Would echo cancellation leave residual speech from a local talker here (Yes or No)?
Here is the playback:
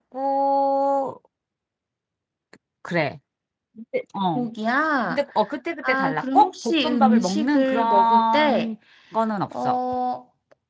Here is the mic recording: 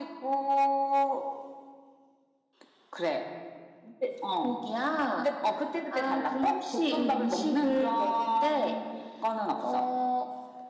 No